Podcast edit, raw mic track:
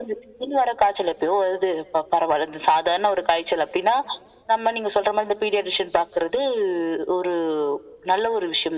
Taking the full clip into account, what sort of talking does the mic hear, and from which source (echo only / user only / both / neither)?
echo only